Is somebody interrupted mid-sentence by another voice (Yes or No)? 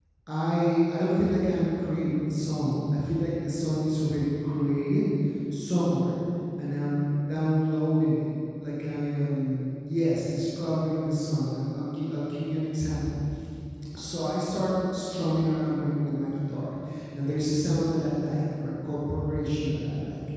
No